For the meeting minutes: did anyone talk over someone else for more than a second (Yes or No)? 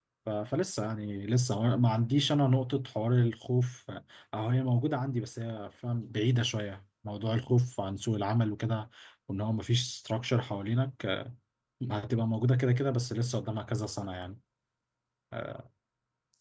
No